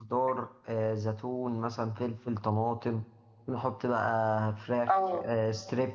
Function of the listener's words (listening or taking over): listening